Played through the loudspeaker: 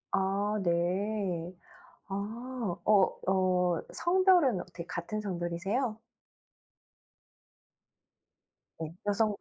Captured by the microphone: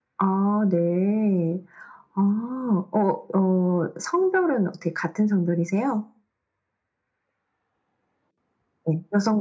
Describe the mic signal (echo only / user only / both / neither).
echo only